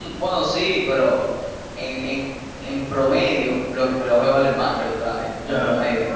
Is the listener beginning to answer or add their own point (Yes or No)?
Yes